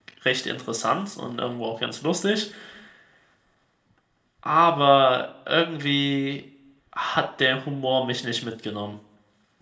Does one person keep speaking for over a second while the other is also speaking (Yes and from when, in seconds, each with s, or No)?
No